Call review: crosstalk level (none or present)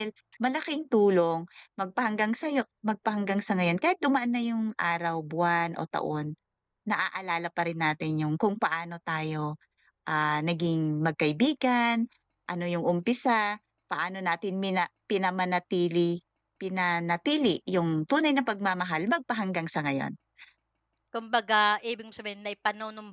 none